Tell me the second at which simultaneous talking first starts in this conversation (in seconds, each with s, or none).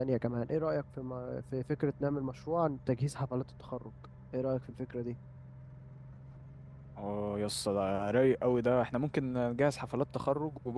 none